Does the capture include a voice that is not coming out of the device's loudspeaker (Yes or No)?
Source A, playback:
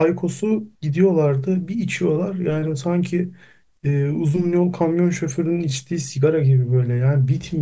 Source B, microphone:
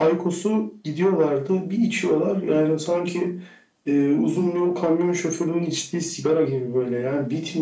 No